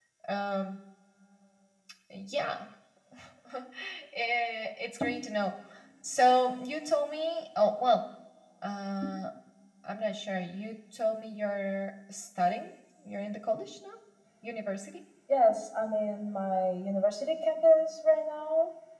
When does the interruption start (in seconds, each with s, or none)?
none